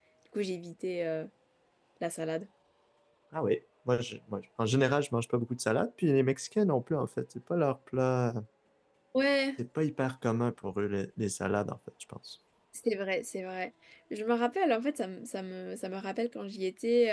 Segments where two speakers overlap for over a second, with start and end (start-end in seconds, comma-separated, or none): none